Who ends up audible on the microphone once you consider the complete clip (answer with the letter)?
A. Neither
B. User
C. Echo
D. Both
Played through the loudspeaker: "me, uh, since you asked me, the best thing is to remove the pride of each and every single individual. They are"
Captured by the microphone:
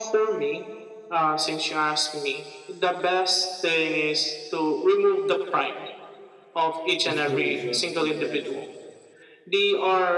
D